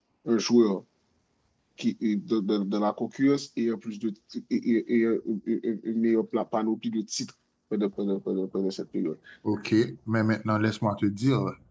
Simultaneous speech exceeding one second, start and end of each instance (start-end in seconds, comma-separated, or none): none